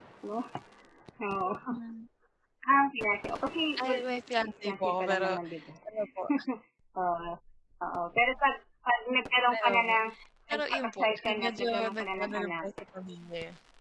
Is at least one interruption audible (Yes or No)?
Yes